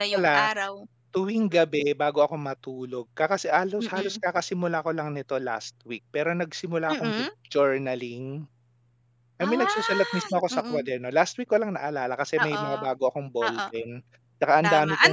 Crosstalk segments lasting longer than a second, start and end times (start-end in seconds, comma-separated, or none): 9.4-10.9